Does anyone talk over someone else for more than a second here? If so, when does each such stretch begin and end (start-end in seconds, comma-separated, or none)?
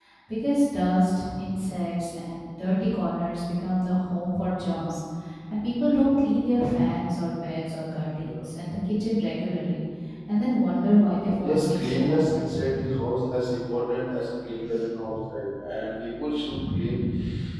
11.4-13.0